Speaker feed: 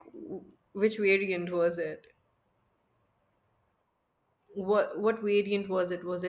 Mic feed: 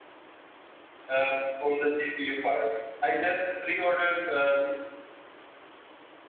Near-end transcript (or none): uh, for the GPU part. I just pre-ordered. Uh,